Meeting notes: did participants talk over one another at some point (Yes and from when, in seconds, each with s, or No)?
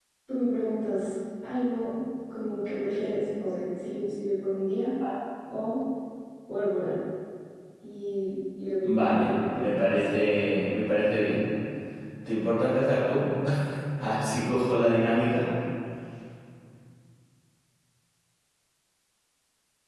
Yes, from 8.8 s